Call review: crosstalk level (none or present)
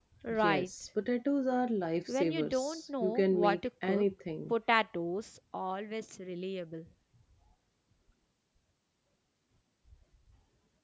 present